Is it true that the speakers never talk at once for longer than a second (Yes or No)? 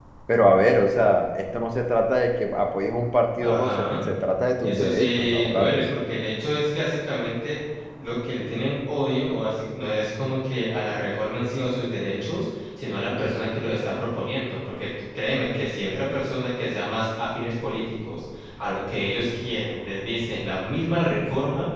No